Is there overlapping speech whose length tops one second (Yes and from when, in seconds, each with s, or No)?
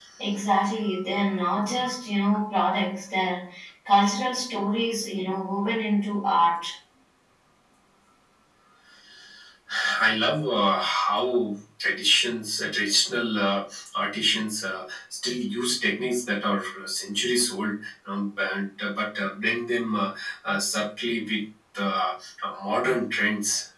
No